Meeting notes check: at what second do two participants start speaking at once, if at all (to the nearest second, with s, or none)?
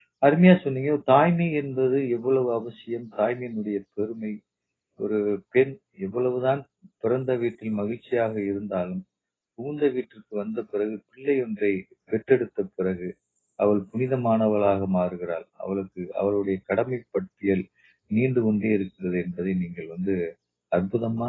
none